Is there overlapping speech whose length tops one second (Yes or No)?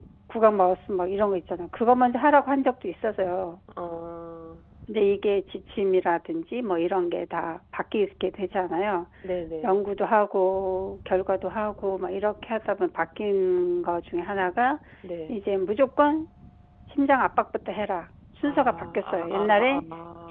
Yes